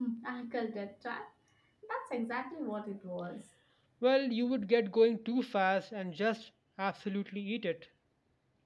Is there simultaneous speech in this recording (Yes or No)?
No